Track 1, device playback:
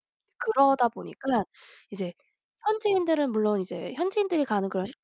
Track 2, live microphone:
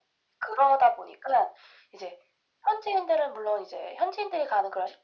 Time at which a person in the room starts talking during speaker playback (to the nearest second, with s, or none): none